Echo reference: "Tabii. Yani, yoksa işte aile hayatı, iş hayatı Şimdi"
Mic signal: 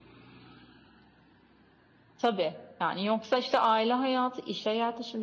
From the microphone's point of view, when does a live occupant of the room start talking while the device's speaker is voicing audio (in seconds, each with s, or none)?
none